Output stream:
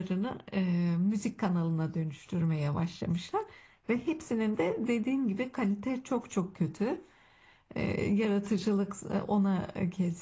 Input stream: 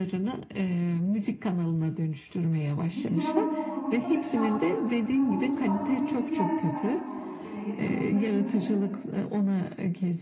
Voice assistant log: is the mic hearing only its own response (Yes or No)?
No